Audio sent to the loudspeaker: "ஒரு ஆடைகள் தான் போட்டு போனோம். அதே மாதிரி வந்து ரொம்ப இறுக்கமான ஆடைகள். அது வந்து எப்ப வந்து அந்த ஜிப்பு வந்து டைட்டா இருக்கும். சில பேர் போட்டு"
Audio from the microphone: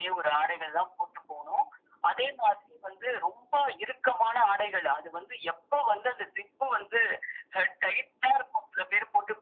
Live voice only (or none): none